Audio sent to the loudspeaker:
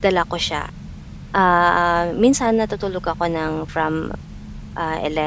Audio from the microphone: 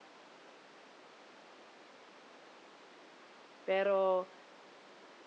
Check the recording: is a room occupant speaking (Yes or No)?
Yes